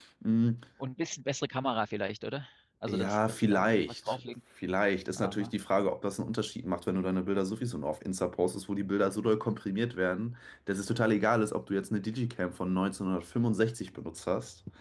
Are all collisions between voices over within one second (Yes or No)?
No